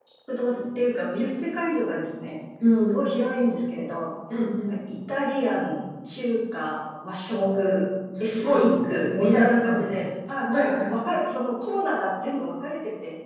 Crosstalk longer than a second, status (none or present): present